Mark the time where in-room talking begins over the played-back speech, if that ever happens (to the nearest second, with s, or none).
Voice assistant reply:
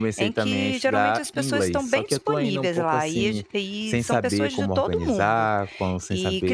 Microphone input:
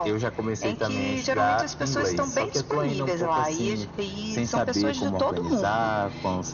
none